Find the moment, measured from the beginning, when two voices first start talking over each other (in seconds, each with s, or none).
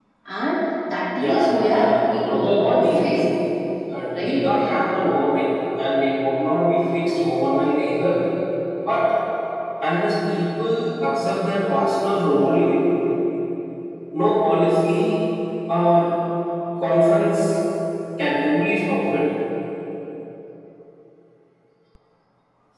1.2 s